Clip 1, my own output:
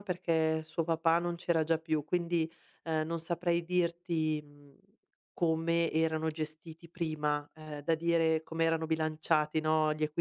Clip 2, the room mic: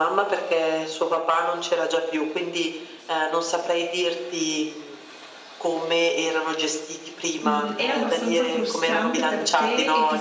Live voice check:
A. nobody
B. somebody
B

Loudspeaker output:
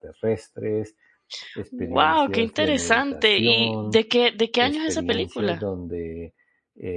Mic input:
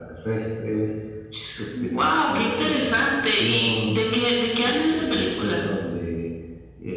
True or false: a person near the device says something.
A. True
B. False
B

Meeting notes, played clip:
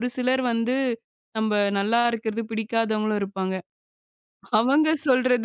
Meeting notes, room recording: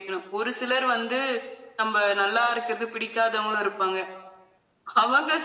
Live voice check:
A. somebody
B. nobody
B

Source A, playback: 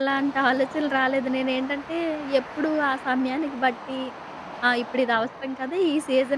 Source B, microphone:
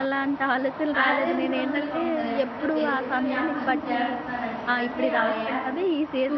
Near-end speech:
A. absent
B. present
B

